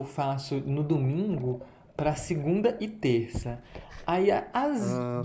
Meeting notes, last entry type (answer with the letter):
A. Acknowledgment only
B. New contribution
A